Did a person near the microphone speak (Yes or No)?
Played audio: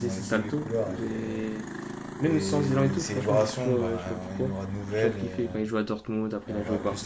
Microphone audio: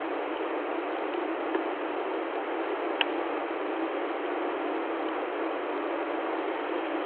No